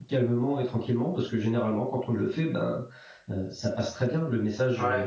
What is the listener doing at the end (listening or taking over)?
listening